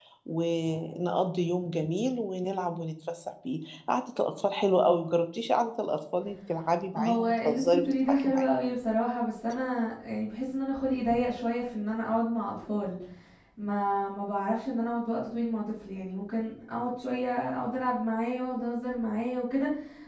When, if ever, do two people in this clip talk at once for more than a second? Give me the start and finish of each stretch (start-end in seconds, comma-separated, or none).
6.9-8.5